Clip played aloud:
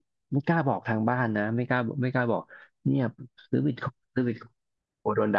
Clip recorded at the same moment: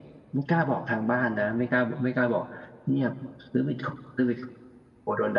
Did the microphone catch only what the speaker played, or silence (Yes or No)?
Yes